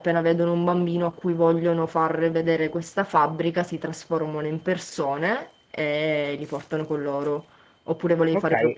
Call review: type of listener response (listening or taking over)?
taking over